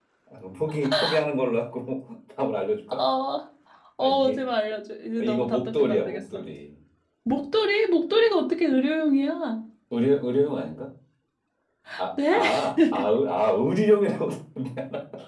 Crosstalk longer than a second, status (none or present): present